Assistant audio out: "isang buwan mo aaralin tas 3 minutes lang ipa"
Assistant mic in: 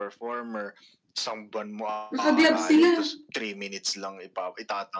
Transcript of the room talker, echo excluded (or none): naka-gloves sila,